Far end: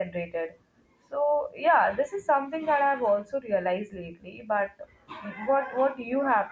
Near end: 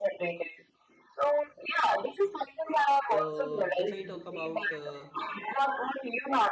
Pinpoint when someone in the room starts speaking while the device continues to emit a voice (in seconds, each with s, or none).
3.1 s